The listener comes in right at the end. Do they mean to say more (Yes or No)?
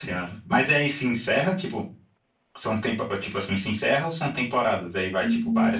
Yes